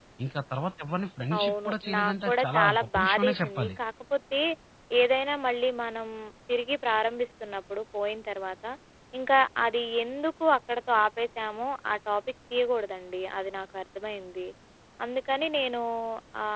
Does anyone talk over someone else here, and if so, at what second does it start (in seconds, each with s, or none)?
1.3 s